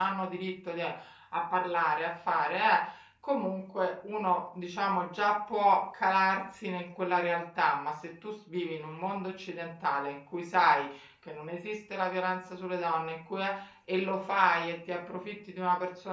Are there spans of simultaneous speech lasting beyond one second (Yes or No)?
No